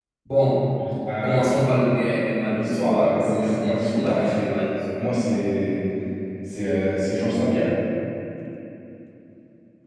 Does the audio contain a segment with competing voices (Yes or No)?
Yes